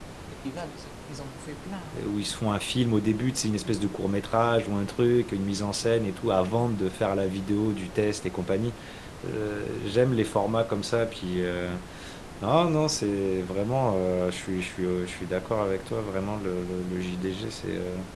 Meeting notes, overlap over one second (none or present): none